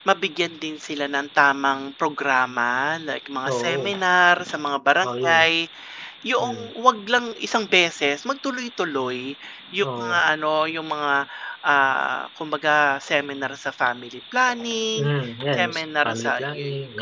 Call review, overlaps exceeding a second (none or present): present